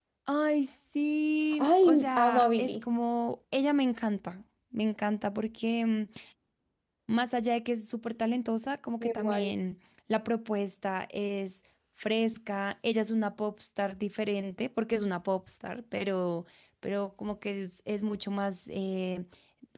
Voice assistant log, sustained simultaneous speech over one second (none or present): present